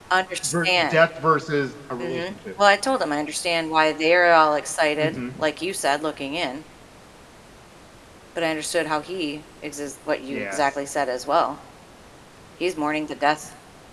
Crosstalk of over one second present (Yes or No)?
No